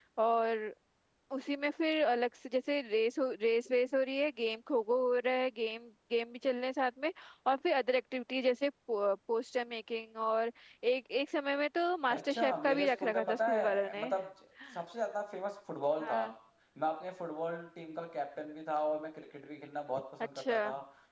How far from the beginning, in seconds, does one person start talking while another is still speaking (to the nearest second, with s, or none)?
12 s